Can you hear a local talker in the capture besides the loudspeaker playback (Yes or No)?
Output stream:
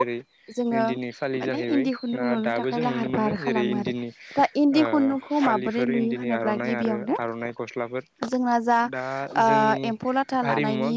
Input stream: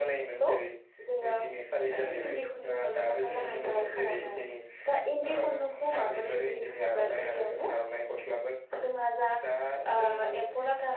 No